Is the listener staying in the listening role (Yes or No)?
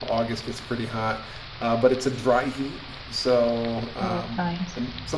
Yes